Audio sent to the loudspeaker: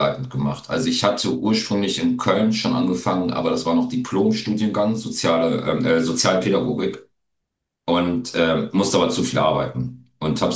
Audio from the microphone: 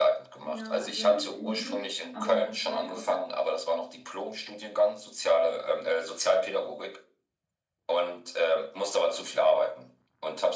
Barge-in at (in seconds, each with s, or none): 0.4 s